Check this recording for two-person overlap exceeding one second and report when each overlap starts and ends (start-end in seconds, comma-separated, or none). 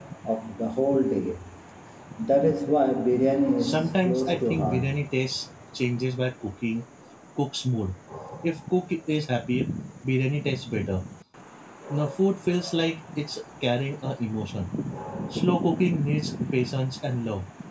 3.6-5.0